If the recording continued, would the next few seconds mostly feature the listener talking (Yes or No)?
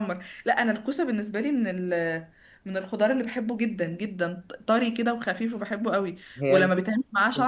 No